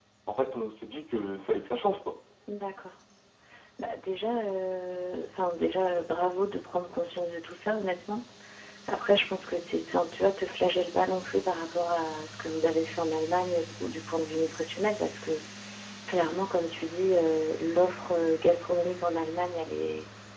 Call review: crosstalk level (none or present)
none